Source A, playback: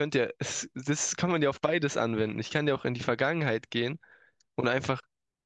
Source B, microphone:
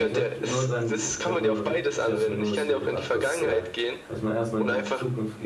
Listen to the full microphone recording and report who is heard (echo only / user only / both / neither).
both